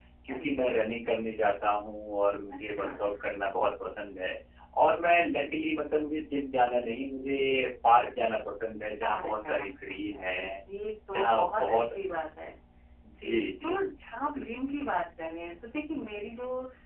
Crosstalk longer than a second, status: present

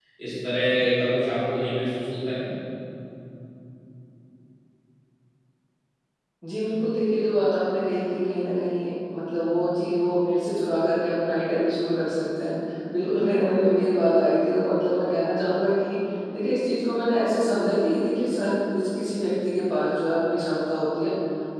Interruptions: none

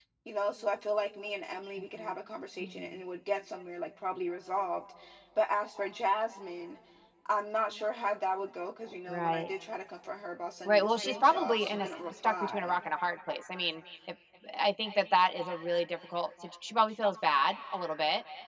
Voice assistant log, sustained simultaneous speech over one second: present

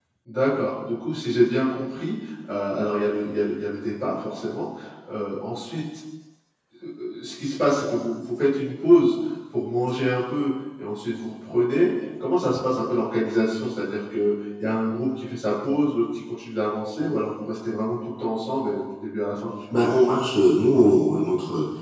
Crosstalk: none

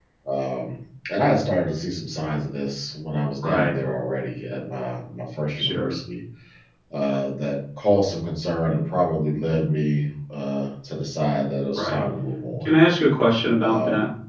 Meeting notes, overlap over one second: none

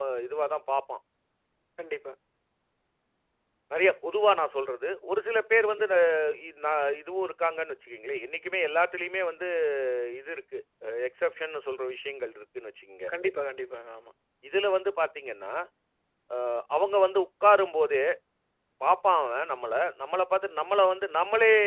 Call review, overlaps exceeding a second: none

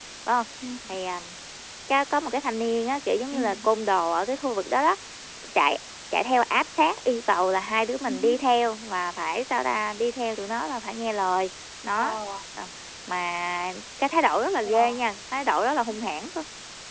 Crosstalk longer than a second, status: none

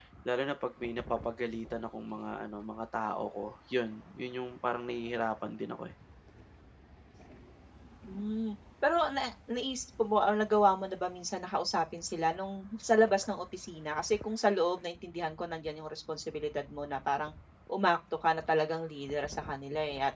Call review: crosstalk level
none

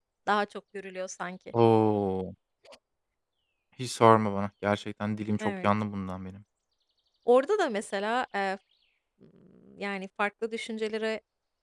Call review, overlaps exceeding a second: none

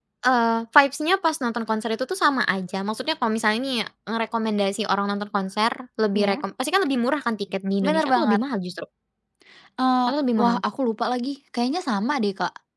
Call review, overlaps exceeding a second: none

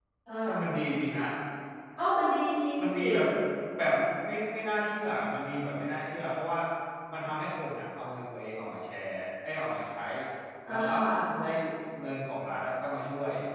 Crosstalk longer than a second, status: none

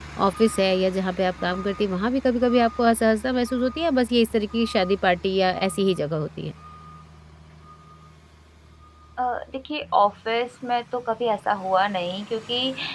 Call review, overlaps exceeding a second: none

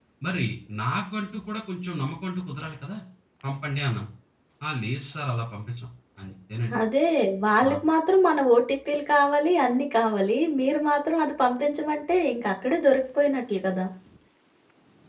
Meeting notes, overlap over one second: none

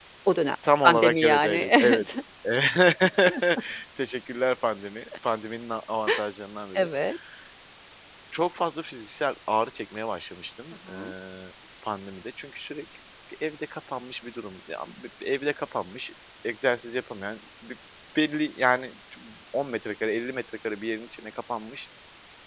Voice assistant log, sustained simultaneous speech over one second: present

